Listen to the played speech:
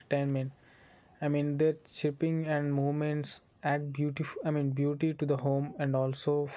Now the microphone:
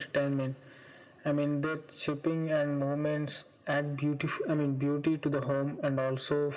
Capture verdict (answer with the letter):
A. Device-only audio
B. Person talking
A